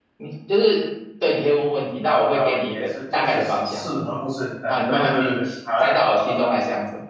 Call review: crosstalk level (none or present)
present